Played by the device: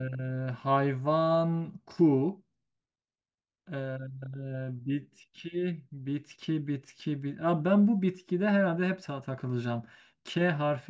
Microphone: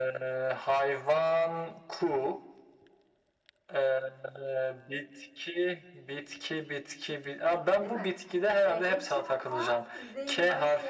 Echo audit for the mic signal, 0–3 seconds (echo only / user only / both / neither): echo only